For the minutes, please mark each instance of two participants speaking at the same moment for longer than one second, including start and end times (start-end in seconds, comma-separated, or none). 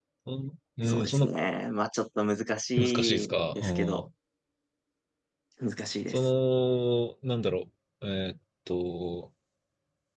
2.8-4.0